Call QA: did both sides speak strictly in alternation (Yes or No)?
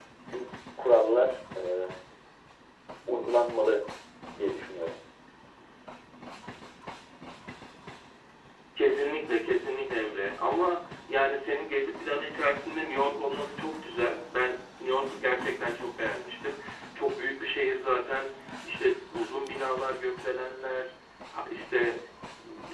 Yes